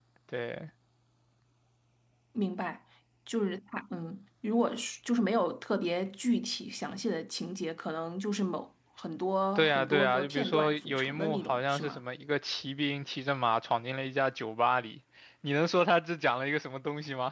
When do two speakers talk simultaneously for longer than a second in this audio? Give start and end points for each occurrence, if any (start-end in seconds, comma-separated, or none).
9.6-12.0